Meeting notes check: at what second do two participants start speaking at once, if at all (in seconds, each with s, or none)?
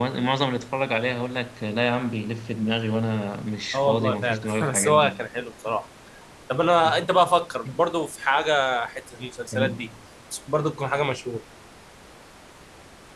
3.7 s